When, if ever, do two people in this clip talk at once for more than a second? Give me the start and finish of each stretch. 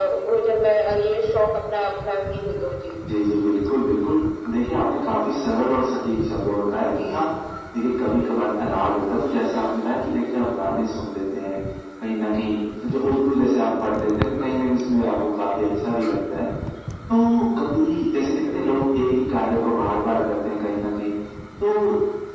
none

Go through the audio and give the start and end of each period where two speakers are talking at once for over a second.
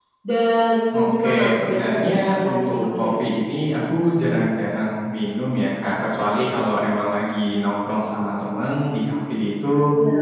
0.9-3.1

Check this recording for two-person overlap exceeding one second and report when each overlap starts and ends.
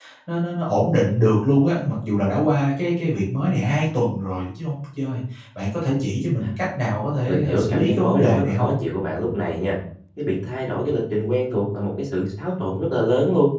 7.3-8.7

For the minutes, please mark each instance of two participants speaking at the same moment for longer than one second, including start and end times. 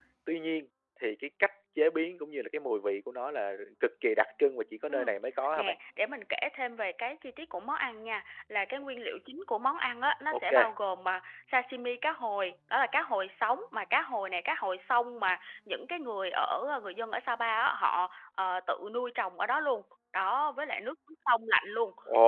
none

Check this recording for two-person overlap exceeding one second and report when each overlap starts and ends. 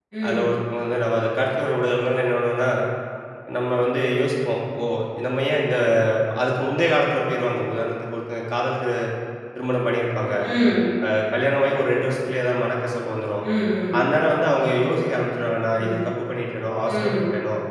none

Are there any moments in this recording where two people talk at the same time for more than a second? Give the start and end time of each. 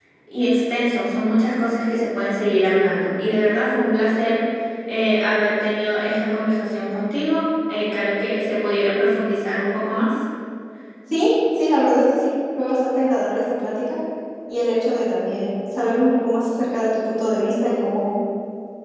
none

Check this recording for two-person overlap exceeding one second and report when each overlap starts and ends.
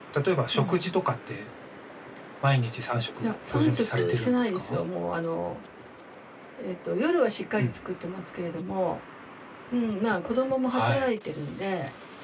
3.2-4.8

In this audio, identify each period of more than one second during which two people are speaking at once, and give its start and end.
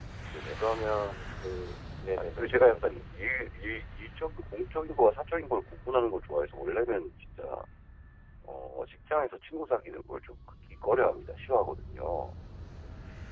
2.1-3.5

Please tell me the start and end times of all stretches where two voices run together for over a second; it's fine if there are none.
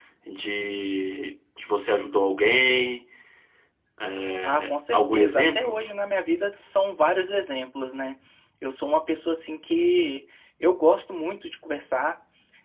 4.4-5.8

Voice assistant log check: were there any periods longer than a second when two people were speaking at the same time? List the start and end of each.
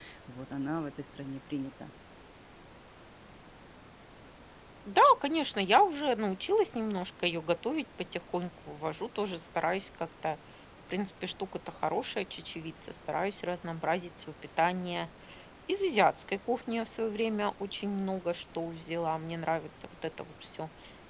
none

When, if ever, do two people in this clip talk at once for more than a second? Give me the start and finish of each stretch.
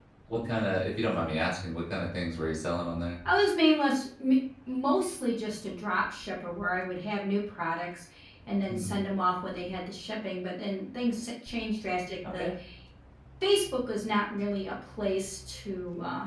none

